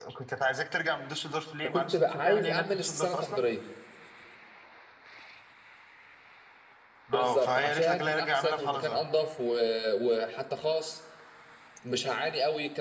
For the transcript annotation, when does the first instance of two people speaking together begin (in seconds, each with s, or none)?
1.6 s